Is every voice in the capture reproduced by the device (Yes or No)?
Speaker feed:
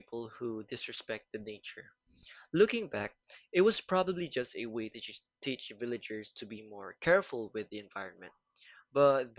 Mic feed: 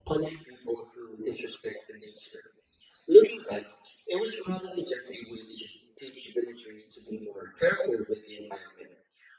Yes